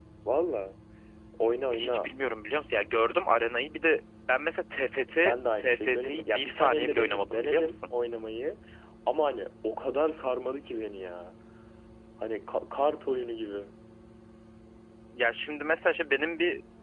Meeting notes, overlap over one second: present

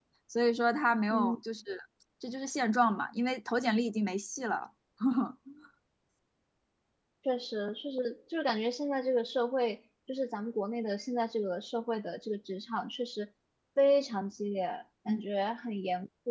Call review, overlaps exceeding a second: none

